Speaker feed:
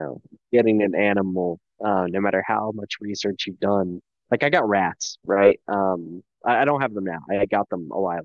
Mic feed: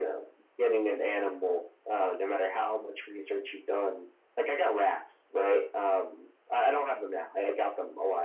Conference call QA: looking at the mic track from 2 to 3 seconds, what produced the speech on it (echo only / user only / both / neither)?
echo only